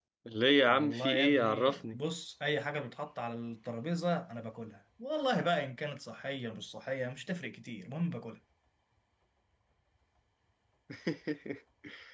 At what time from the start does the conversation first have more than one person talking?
0.7 s

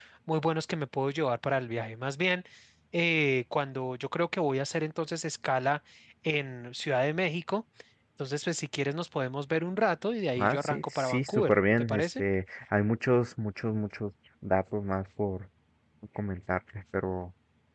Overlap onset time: 10.4 s

